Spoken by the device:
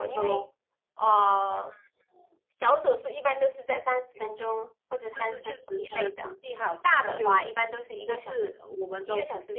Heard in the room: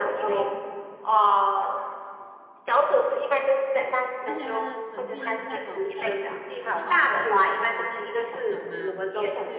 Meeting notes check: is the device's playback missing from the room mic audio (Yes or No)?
No